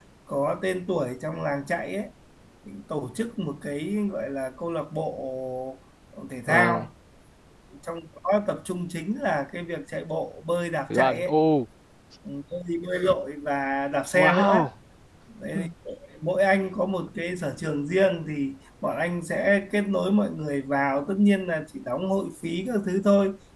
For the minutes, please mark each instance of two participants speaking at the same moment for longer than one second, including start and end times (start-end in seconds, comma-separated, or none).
none